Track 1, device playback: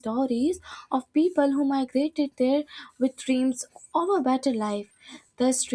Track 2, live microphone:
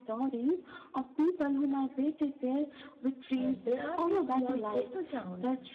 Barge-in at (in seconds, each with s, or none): 3.3 s